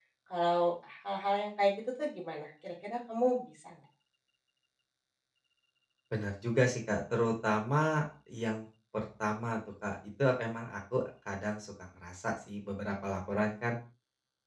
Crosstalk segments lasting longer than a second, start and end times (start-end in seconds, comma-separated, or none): none